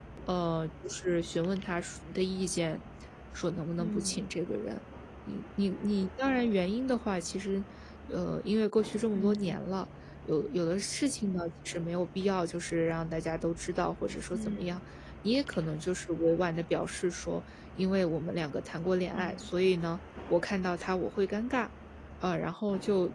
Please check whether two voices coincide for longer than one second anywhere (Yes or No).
No